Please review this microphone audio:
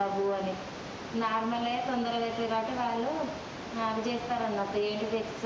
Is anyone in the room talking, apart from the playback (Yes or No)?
No